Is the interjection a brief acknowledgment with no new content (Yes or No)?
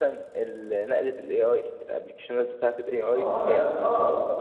No